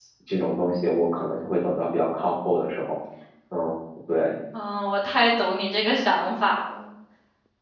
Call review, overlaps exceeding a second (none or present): none